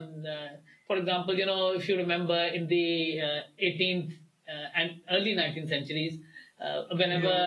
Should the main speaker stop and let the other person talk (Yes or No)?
No